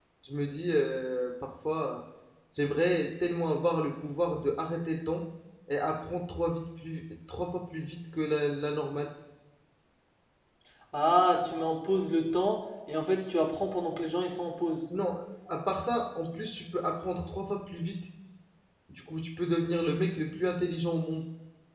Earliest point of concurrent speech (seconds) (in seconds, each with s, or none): none